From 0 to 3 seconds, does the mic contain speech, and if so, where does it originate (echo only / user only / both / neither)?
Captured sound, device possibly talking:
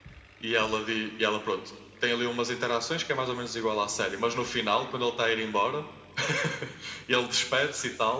echo only